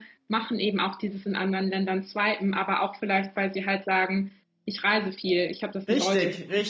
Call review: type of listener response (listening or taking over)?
taking over